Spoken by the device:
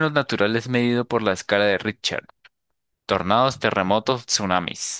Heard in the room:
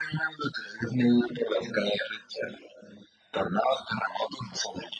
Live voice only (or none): none